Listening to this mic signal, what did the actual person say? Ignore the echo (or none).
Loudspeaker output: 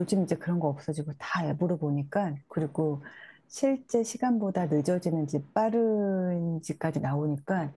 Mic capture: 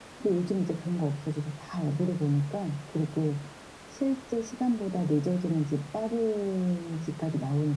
none